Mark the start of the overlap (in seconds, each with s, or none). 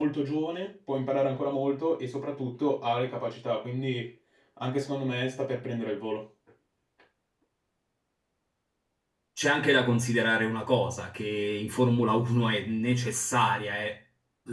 none